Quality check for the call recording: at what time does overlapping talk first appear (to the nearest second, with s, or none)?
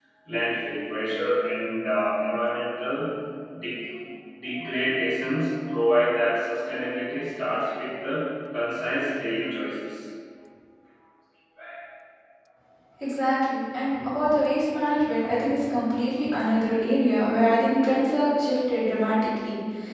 none